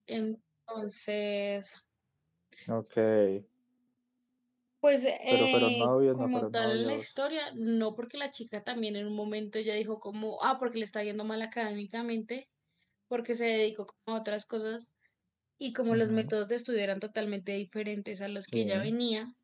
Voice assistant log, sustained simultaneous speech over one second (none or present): present